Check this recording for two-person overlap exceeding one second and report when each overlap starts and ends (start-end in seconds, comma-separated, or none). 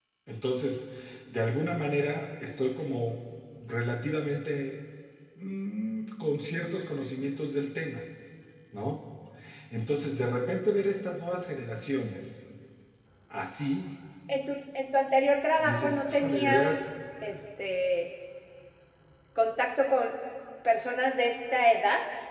15.6-16.9